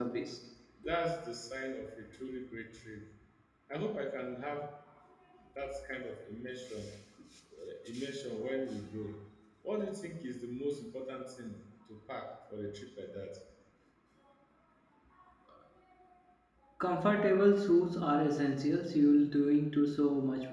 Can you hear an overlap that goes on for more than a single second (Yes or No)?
No